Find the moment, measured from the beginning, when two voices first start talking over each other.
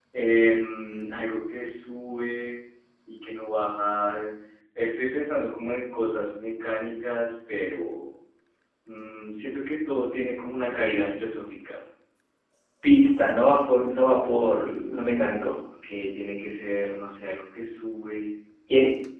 none

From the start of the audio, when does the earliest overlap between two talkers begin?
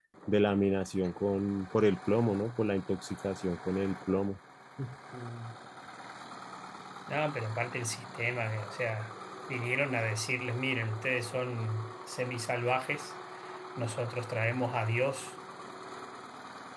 none

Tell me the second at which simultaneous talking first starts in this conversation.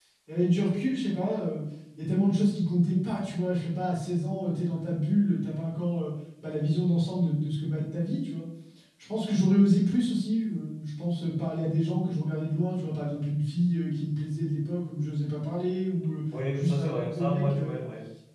16.3 s

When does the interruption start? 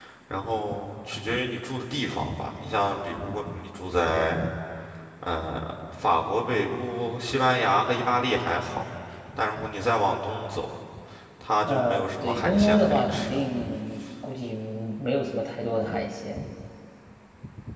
11.6 s

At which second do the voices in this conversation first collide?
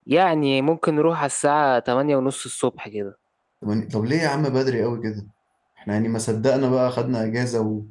none

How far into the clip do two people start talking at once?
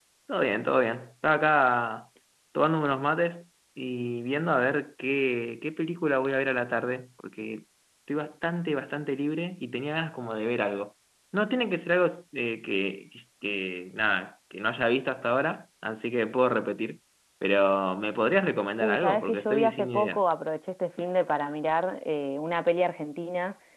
18.8 s

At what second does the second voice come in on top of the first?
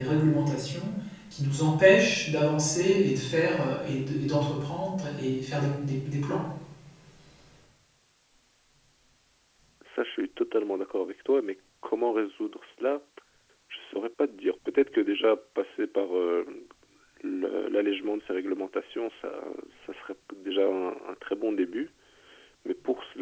none

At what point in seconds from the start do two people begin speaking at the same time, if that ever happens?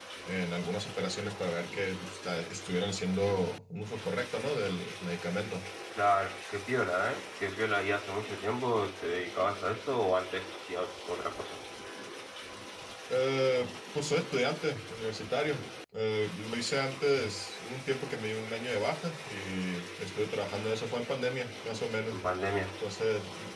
none

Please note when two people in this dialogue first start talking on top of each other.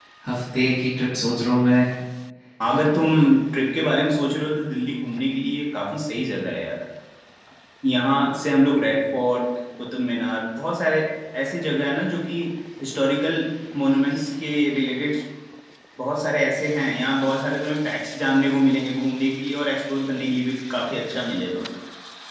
none

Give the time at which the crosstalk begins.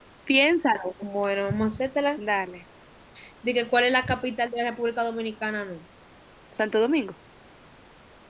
none

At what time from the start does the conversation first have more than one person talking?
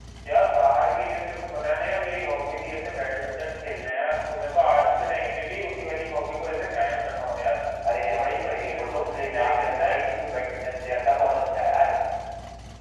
8.0 s

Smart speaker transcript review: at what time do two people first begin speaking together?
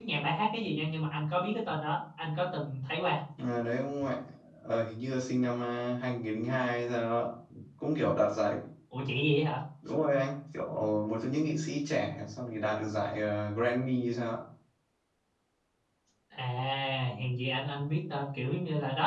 none

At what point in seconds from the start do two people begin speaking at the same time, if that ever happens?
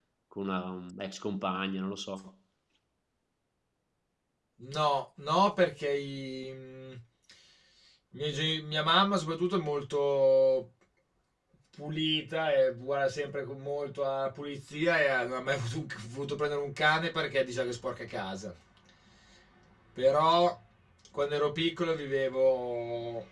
none

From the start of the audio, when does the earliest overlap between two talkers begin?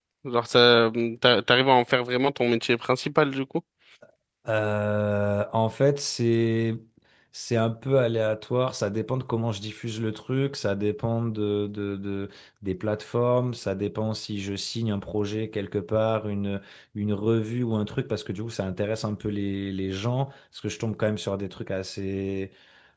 none

